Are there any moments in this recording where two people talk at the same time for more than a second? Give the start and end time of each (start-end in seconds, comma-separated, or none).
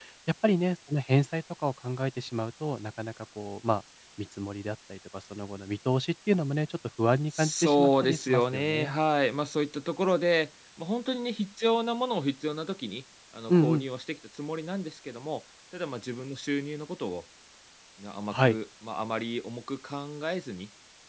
7.3-8.9